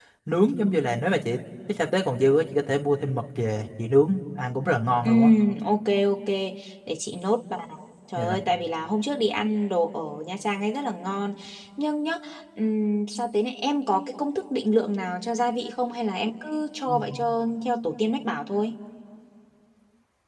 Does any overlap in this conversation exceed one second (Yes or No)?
No